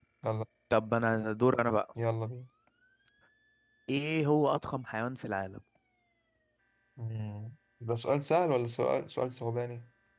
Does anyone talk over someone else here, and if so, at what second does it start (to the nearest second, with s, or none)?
none